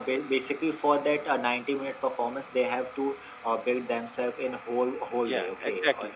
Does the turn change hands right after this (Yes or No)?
No